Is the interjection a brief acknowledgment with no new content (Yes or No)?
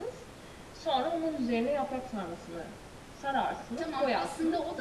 No